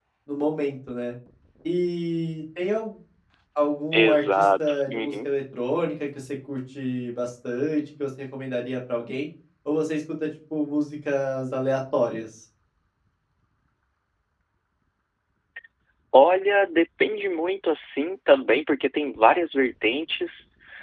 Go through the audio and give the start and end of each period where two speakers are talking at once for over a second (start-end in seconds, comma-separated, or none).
3.9-5.3